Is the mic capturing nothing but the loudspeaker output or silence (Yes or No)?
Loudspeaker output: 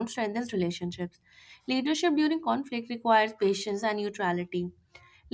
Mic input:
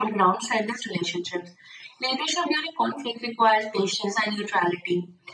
Yes